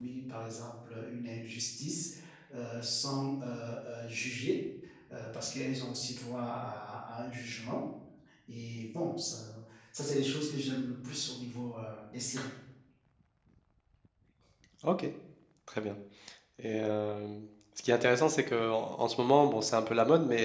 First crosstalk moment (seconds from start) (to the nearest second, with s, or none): none